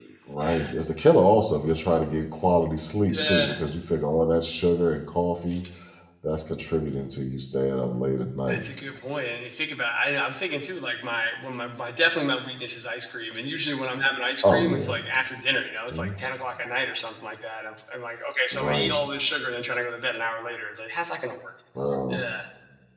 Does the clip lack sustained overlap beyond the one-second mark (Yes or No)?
Yes